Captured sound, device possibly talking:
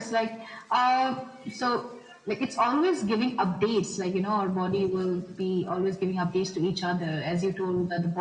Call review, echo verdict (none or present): present